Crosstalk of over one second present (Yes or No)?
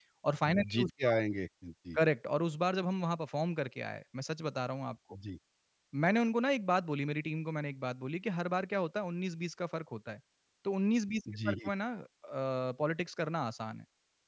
No